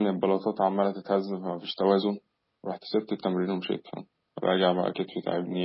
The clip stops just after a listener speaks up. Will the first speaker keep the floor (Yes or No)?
No